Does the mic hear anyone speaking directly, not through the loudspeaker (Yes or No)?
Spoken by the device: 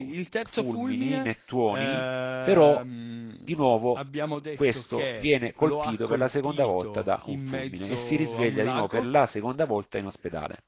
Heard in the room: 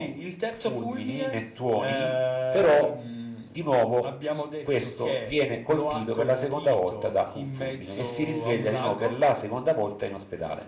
No